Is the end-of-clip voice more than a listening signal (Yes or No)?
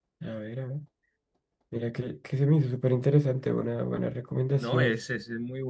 Yes